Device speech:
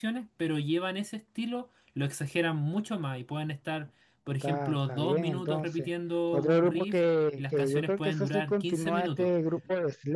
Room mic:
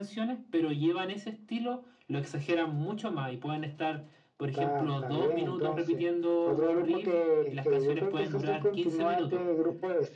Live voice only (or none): none